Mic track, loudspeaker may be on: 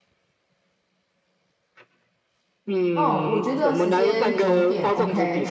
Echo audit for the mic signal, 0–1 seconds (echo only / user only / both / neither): neither